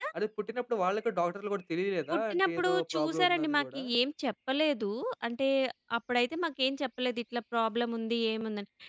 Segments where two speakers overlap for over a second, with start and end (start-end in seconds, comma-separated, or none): 2.1-3.8